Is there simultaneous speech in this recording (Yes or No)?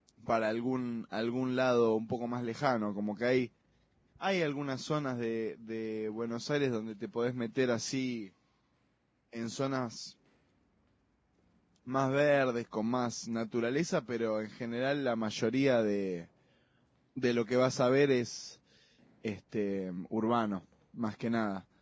No